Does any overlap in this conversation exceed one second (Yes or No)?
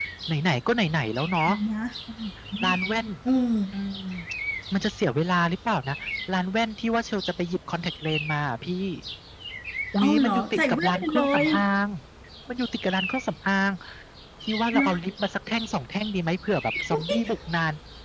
Yes